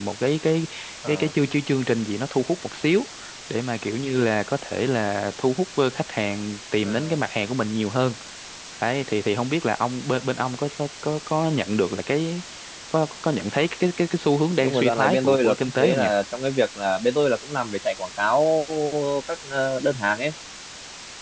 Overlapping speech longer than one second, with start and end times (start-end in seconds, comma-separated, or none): 14.6-16.1